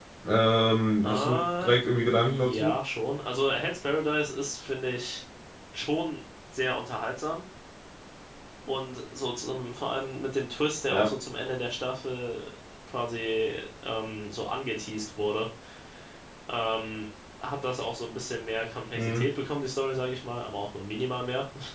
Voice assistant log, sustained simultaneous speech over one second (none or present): present